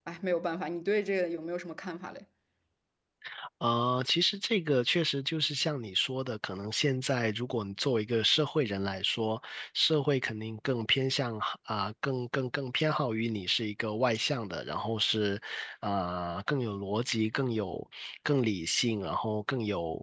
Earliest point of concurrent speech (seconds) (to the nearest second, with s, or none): none